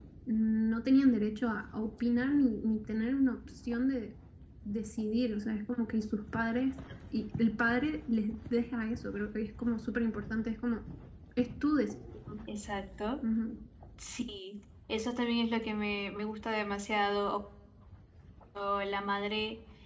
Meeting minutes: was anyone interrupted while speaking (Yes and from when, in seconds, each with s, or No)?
No